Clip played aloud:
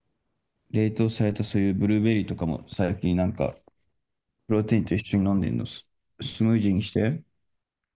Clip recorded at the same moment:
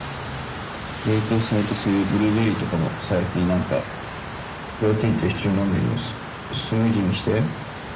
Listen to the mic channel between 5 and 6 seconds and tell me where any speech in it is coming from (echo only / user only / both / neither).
echo only